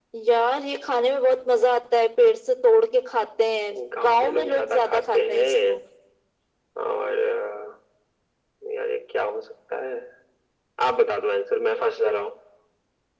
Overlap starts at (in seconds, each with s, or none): 3.8 s